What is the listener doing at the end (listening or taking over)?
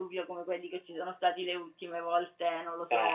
listening